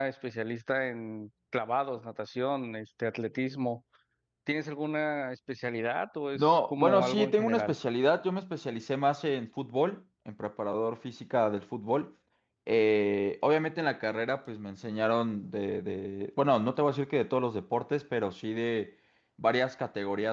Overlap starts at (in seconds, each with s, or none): 6.3 s